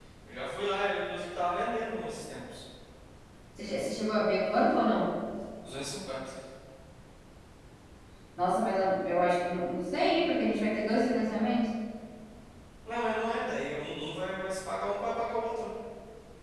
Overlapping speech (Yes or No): No